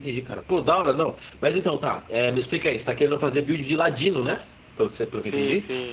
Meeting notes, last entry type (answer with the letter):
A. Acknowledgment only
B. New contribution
B